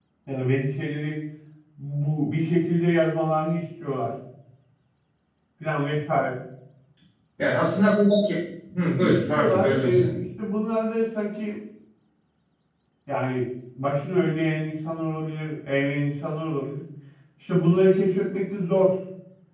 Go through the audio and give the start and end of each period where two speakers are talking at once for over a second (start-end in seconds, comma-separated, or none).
8.8-10.1